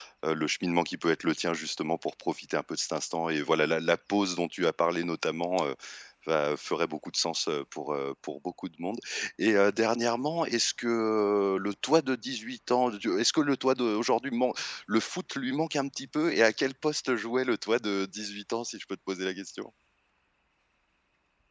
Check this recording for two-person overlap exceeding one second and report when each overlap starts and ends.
none

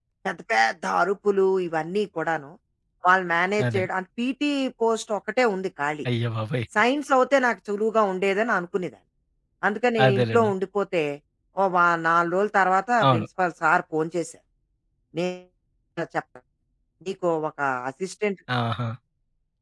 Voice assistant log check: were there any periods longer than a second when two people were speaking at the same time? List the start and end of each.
none

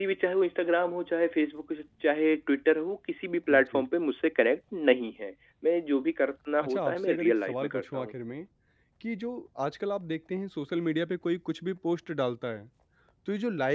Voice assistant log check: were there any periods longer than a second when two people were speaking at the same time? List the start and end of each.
6.6-8.2

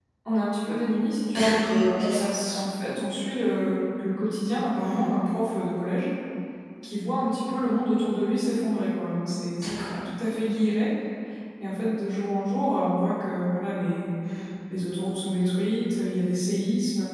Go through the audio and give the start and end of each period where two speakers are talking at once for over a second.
none

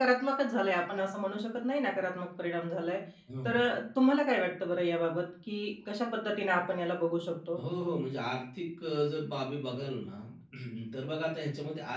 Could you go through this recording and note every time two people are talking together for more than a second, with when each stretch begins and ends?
none

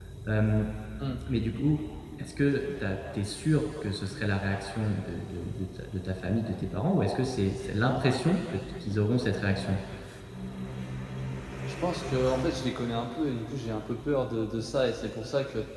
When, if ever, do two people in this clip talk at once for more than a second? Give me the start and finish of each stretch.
none

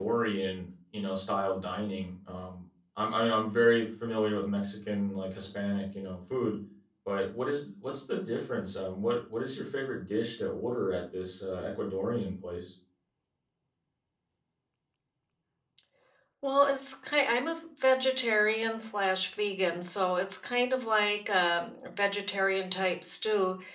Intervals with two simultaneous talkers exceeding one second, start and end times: none

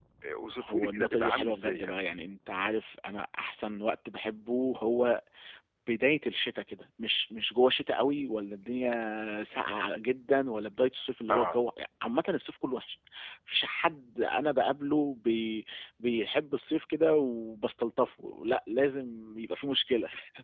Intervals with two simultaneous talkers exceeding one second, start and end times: 0.6-1.9

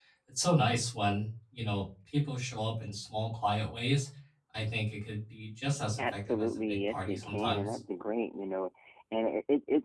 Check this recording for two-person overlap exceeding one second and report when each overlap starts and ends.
6.0-7.8

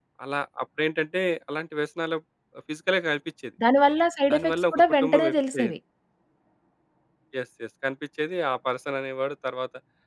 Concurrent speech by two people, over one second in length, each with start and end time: 4.3-5.8

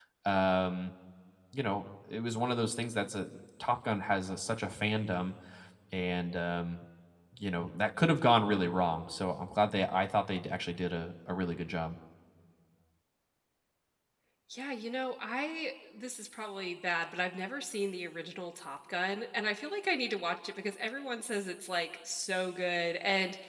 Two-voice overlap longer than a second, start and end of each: none

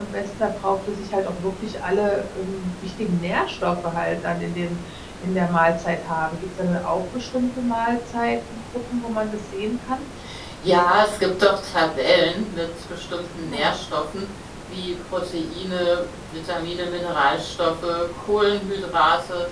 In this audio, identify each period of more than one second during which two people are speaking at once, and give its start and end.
none

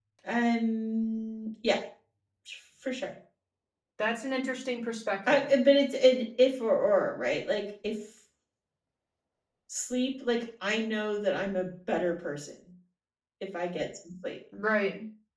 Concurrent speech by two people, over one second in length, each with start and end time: none

